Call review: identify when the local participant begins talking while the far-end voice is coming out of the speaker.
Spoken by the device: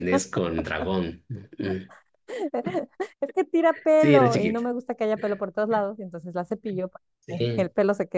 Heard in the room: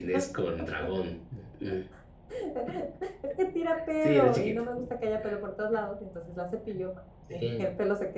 none

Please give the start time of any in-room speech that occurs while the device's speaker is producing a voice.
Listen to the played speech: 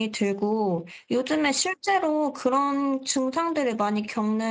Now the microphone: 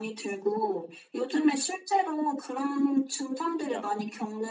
3.6 s

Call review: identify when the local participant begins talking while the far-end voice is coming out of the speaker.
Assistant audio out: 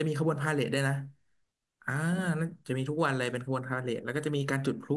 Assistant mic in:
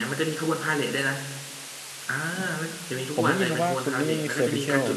3.1 s

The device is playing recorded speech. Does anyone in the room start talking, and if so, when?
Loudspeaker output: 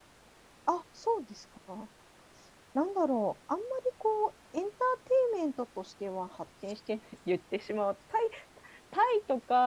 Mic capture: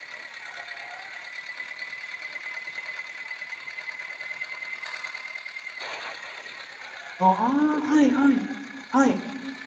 7.2 s

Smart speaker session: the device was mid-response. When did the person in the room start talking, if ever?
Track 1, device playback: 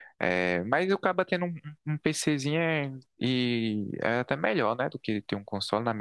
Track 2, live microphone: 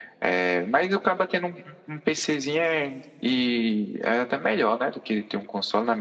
none

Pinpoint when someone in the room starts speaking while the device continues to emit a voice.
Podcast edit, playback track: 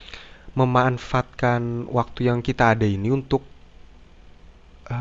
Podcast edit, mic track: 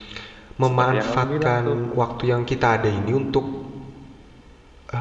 0.7 s

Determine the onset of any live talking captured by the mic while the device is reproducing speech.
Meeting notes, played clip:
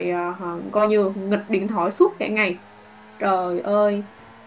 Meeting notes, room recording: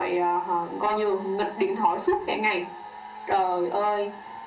none

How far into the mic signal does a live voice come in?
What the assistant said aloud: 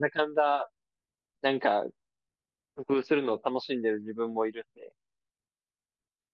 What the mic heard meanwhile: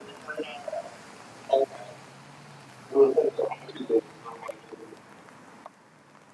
none

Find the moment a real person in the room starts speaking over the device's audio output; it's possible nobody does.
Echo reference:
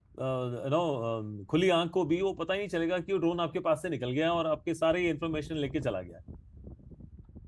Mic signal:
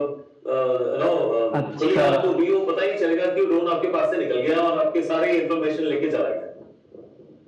1.6 s

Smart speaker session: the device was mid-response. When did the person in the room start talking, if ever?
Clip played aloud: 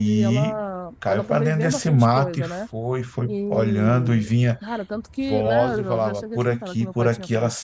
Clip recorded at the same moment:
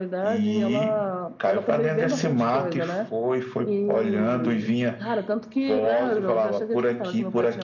none

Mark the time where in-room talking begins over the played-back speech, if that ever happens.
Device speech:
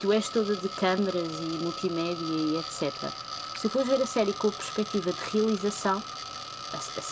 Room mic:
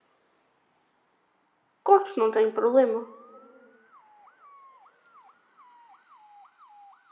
1.8 s

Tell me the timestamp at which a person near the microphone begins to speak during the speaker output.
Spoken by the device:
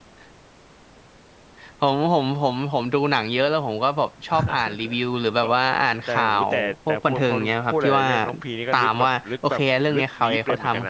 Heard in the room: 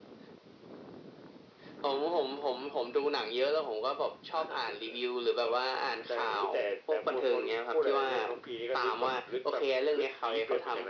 none

